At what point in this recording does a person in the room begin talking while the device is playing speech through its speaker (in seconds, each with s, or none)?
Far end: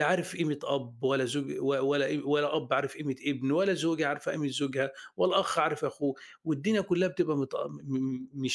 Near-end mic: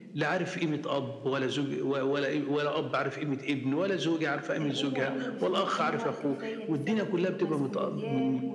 4.6 s